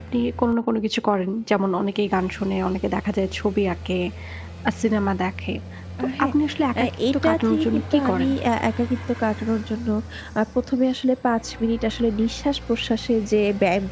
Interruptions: present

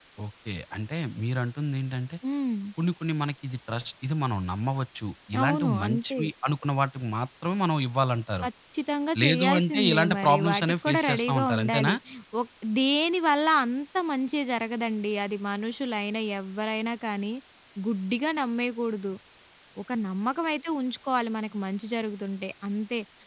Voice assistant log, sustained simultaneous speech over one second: present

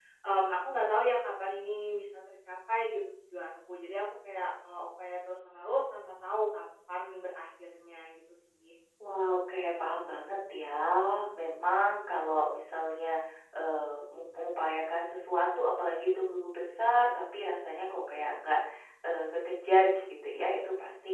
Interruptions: none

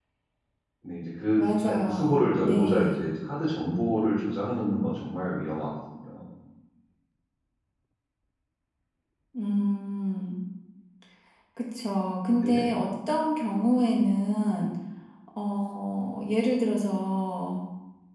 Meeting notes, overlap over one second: present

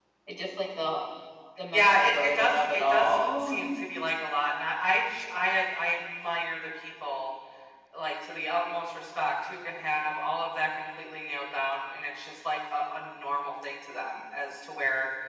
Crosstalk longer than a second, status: present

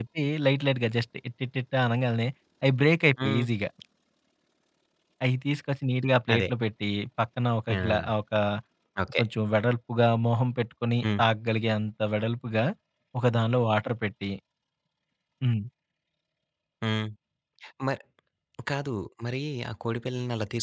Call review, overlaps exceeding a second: none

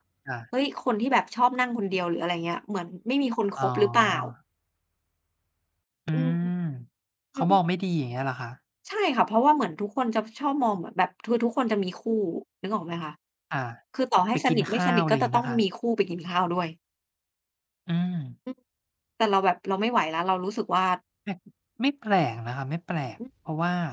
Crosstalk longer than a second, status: present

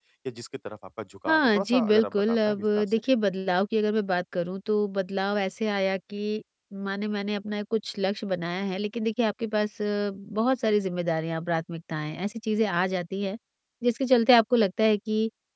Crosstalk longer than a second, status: present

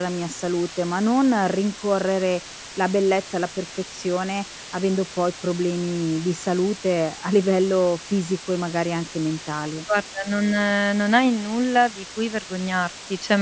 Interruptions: none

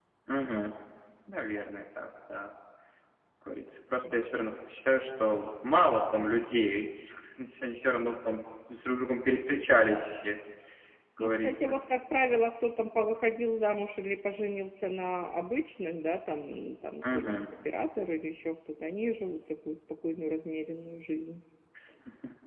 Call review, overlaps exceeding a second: none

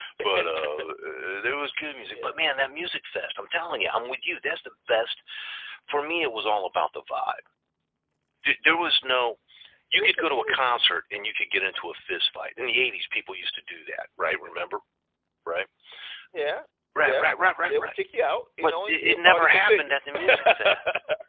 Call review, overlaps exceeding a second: present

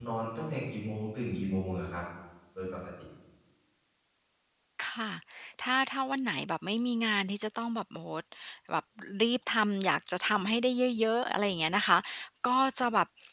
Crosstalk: none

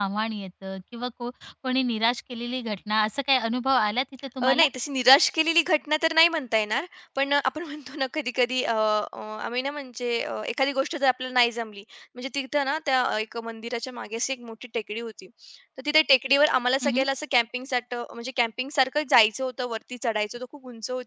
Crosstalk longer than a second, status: none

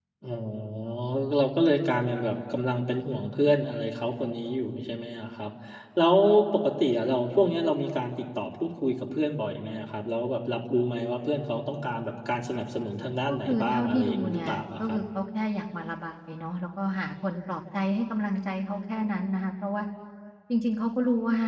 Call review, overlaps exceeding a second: present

